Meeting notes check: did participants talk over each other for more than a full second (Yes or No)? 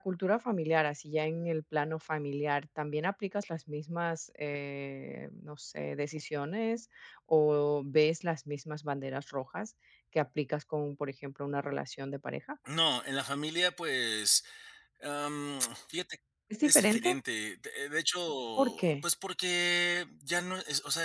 No